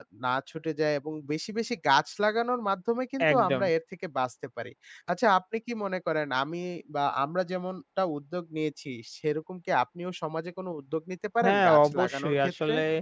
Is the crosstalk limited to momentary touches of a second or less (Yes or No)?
No